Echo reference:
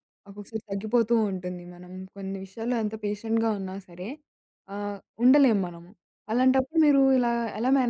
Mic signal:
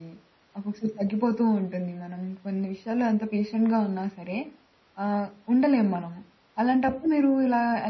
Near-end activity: none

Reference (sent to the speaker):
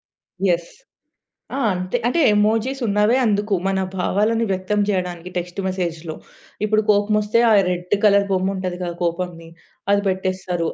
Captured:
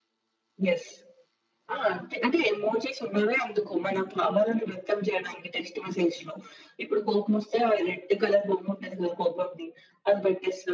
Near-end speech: none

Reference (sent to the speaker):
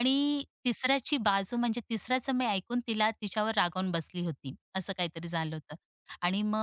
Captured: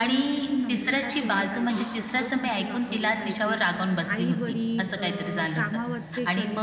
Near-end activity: present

